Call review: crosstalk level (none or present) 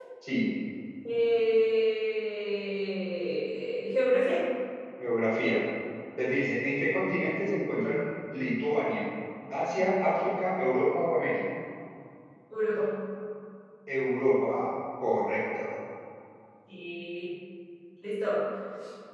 none